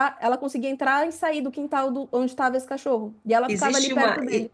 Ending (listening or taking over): taking over